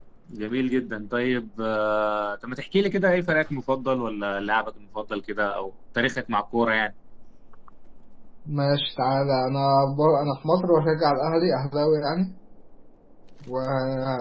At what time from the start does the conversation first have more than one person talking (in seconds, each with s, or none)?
none